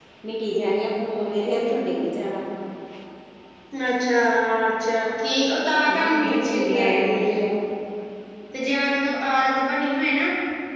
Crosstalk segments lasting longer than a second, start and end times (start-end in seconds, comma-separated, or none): 6.0-7.3